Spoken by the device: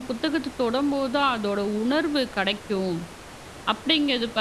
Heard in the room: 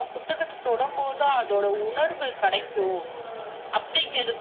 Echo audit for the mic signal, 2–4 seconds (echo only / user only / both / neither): both